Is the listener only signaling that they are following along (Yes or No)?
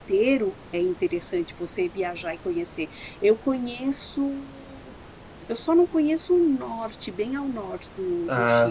Yes